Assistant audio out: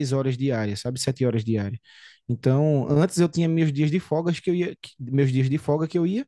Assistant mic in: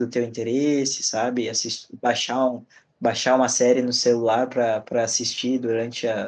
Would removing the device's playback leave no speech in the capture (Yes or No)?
No